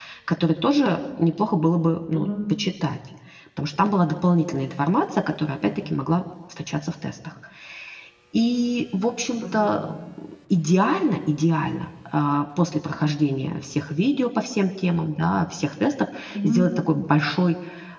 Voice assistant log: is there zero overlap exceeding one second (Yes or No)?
Yes